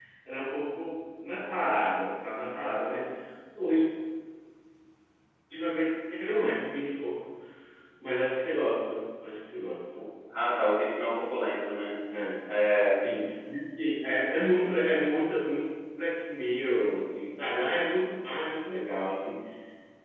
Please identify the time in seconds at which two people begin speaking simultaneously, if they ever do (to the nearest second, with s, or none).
none